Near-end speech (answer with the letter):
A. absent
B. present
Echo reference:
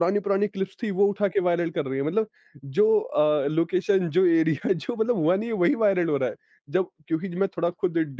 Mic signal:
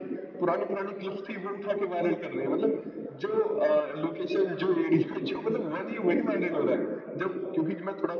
A